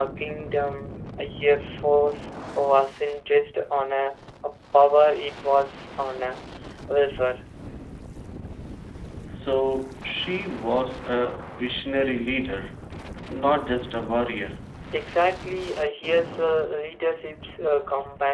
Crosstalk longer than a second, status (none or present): none